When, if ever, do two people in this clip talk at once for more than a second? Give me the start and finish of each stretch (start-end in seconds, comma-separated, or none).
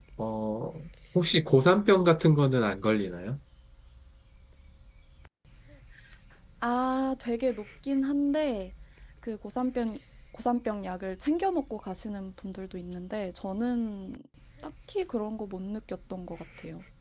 none